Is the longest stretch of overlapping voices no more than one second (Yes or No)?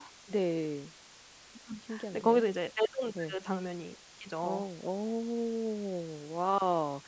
Yes